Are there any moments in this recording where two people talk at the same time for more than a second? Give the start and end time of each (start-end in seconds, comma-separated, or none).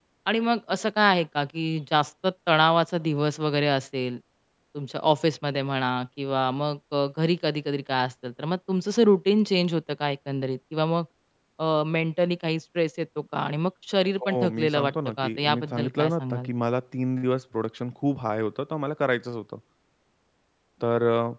14.2-16.5